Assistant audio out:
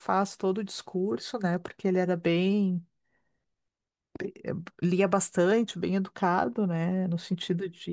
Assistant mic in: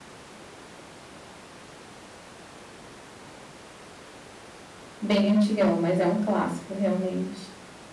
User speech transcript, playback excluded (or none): bem antigão, mas é um clássico realmente.